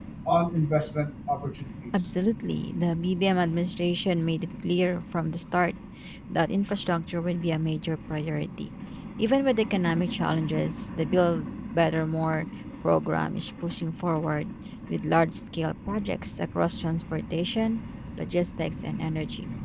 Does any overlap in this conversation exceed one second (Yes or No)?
No